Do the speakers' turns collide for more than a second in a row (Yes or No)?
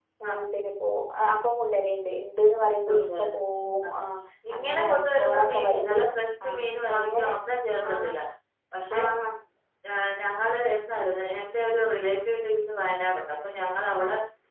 Yes